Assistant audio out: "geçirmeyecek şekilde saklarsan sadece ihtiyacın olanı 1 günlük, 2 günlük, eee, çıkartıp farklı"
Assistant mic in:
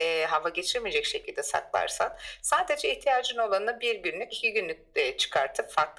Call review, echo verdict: present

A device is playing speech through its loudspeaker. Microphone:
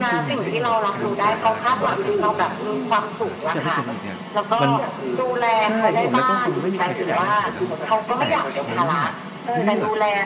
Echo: present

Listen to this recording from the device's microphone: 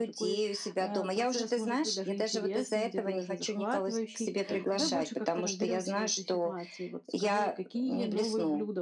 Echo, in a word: present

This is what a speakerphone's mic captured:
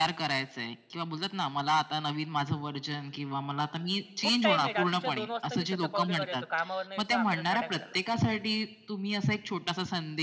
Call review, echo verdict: present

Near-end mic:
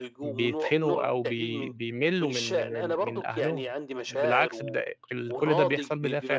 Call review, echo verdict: present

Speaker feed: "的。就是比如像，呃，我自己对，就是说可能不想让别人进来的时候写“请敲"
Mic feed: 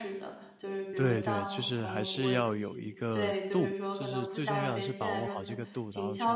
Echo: present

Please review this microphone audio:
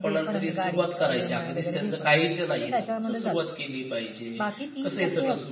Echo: present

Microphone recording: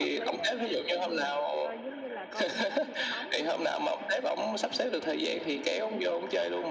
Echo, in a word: present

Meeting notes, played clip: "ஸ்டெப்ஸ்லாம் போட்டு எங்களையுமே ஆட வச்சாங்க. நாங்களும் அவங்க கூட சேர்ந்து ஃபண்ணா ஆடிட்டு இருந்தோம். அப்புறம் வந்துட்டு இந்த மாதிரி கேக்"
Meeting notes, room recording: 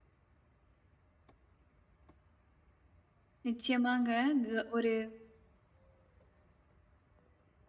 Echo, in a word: none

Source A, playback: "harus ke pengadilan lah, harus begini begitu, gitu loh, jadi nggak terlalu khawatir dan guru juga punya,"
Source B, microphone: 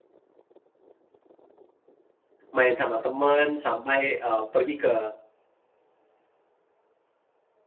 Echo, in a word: none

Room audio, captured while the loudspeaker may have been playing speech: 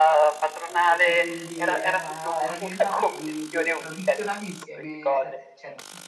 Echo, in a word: present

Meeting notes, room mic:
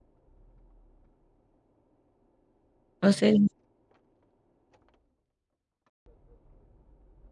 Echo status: none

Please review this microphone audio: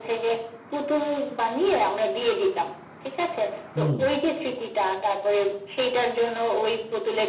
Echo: present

